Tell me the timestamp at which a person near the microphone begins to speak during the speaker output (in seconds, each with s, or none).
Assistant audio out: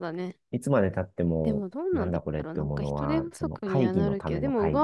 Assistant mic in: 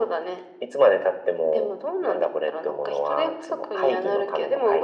none